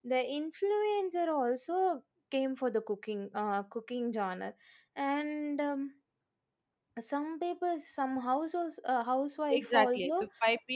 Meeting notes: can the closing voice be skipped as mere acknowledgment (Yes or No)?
No